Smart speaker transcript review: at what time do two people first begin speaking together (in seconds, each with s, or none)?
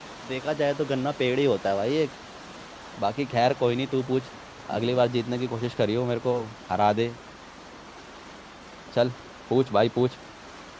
none